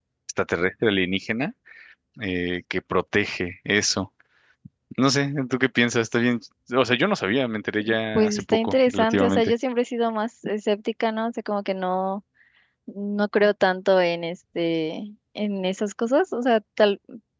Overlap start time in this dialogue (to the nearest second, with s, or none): 8 s